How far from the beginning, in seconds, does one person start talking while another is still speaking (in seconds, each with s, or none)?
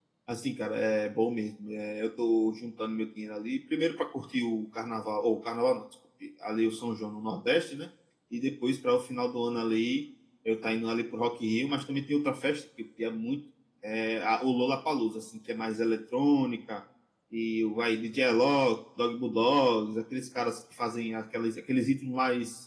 none